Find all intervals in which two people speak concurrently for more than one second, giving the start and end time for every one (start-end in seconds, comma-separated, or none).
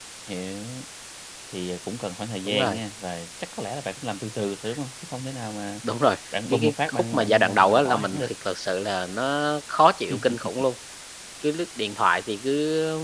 6.5-8.3